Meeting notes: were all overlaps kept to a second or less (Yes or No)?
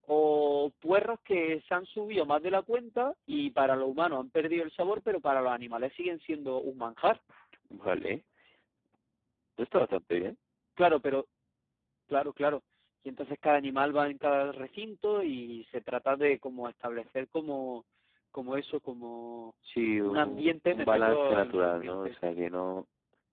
No